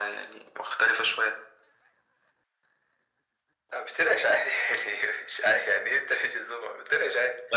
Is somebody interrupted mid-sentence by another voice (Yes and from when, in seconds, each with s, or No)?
No